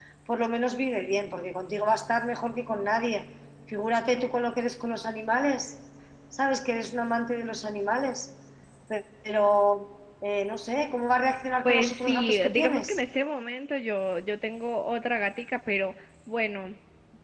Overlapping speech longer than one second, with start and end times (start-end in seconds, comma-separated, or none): 11.7-13.0